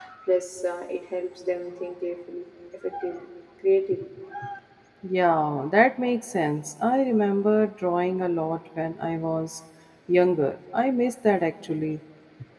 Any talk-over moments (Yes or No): No